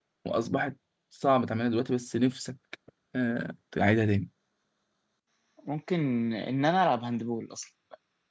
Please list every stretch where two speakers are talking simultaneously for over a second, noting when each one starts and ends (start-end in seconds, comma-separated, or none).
none